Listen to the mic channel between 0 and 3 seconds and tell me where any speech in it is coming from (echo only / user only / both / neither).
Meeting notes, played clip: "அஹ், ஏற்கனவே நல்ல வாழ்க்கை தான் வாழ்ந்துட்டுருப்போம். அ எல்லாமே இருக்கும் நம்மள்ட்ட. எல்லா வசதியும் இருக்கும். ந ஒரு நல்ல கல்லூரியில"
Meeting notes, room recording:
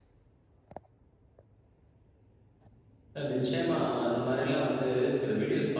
neither